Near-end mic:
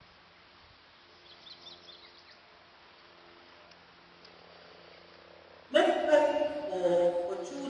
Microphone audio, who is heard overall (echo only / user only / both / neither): user only